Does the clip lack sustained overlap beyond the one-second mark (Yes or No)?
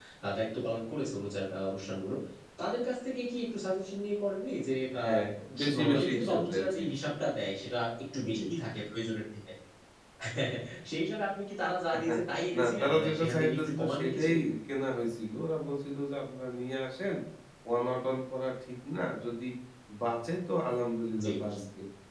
No